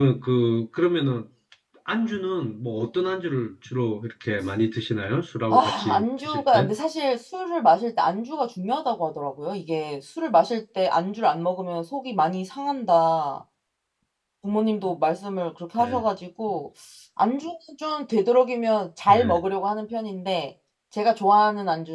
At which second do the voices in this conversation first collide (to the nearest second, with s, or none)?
6 s